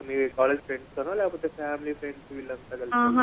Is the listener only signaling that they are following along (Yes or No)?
No